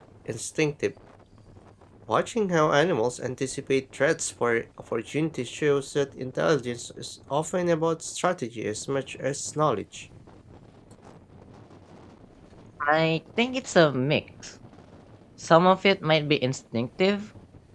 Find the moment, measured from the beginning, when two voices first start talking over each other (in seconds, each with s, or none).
none